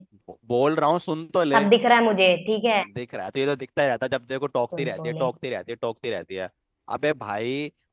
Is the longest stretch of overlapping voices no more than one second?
Yes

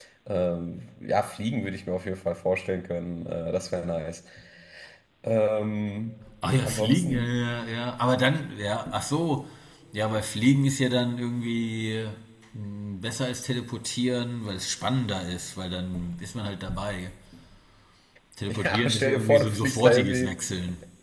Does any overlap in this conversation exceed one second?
Yes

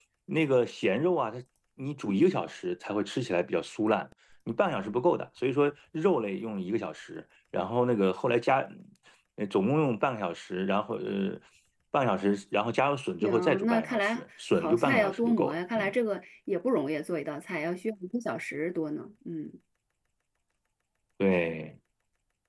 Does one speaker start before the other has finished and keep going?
Yes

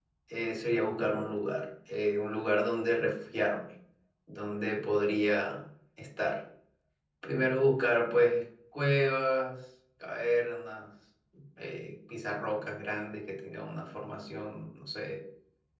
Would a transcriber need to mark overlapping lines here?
No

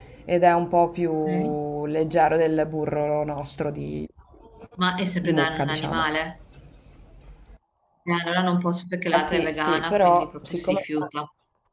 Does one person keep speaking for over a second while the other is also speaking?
Yes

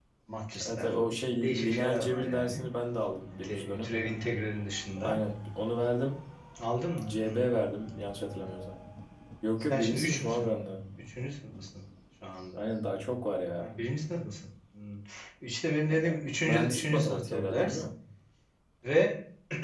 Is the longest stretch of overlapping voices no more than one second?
No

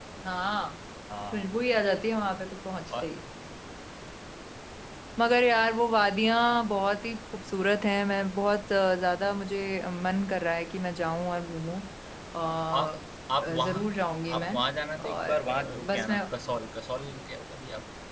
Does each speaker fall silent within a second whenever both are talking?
No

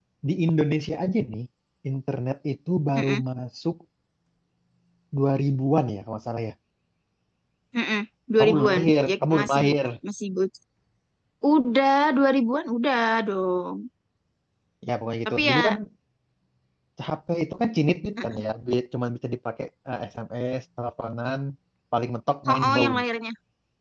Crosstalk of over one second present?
Yes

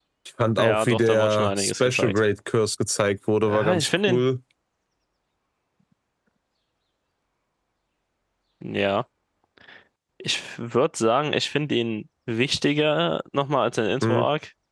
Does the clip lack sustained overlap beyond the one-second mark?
No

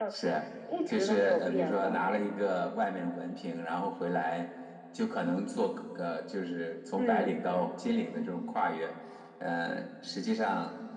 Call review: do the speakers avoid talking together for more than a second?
No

